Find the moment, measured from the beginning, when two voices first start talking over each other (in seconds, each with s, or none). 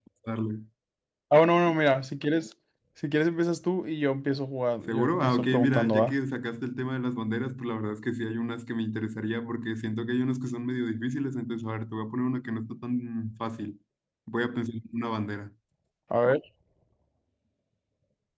4.9 s